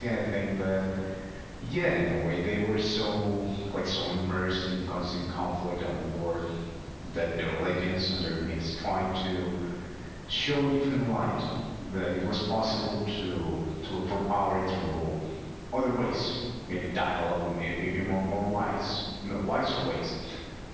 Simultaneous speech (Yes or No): No